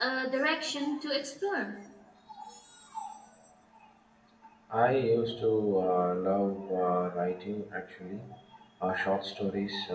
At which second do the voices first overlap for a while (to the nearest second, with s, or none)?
none